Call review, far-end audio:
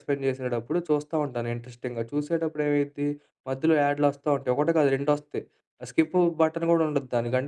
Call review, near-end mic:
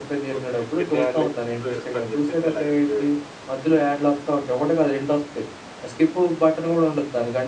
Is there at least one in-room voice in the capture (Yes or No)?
Yes